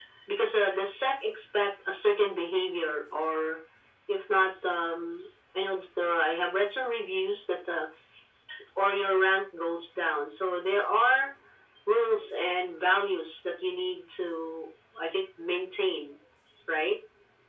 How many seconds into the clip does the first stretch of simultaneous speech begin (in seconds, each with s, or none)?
none